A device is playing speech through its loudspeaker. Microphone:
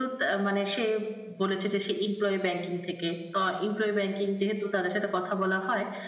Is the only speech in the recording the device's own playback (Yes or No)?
Yes